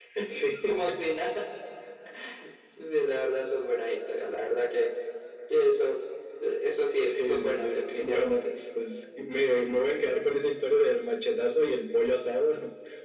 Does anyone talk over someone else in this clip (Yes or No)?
Yes